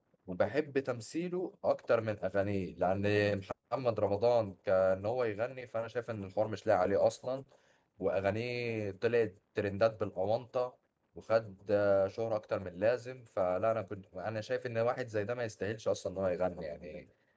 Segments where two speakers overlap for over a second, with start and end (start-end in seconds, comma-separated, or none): none